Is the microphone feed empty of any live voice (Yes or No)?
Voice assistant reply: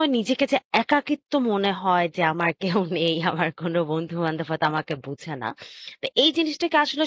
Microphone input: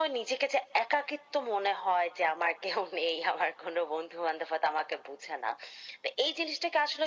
Yes